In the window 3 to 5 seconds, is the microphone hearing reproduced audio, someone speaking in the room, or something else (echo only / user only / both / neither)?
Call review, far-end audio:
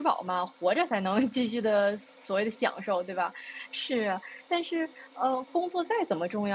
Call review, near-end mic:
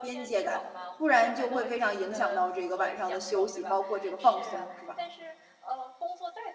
both